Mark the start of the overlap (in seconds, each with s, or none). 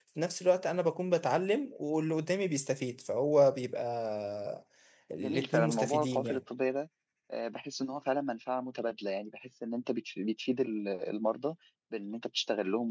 5.2 s